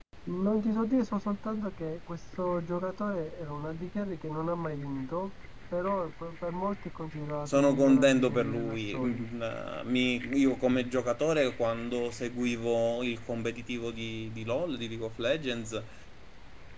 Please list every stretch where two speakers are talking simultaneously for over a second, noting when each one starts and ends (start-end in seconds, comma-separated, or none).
7.5-9.2